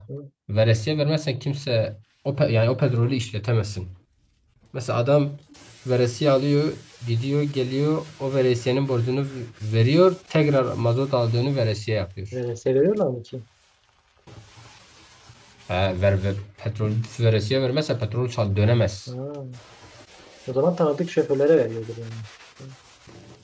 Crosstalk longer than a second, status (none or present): none